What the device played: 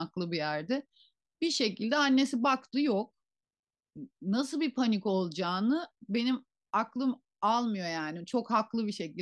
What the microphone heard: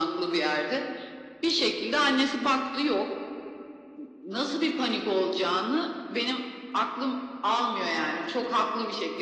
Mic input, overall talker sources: echo only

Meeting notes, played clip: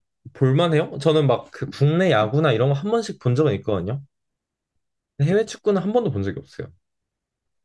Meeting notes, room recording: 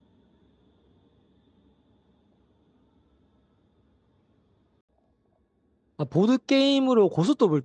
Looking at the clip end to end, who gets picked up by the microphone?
user only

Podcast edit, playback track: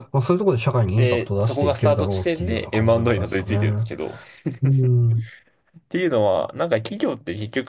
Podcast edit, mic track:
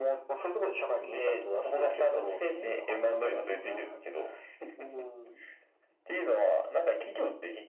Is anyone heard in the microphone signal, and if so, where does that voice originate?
echo only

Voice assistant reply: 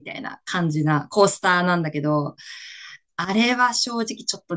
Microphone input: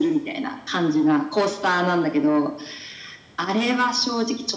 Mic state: echo only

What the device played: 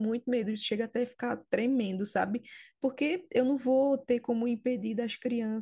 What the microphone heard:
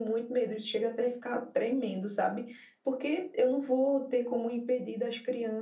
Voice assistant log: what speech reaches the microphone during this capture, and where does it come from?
echo only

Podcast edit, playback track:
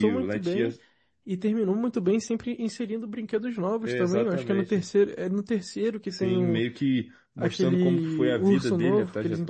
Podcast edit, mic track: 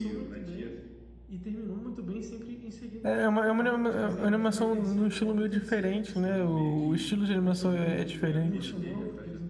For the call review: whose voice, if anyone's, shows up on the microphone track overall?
both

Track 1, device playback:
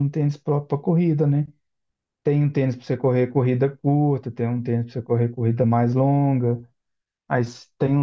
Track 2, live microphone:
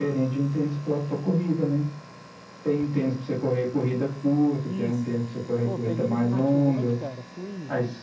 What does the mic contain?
both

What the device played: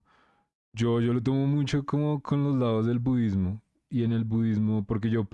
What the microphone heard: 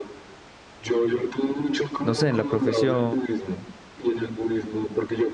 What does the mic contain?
both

